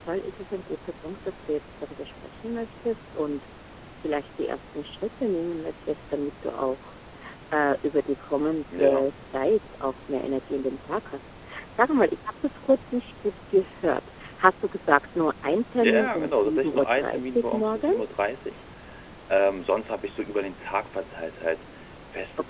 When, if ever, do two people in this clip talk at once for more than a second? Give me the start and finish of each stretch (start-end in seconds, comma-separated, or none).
15.8-18.1